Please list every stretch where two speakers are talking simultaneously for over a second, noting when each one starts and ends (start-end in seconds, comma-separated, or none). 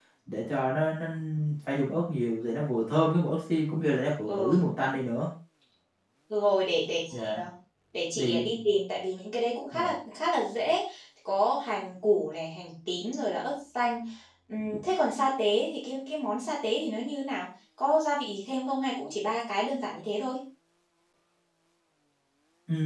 none